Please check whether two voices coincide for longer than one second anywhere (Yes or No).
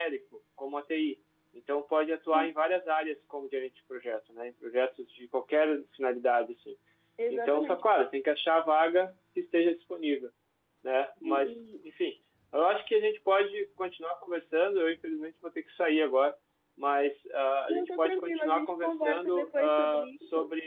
Yes